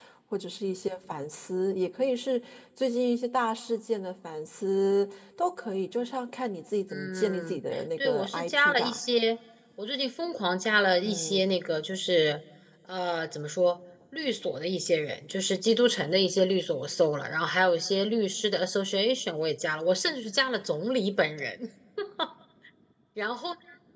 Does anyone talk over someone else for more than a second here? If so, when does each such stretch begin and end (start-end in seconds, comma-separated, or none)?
6.9-9.0